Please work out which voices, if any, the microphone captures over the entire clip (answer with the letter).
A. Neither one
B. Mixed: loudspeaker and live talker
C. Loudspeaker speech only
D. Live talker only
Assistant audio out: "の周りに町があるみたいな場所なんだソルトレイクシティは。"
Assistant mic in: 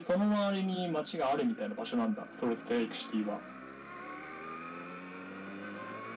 C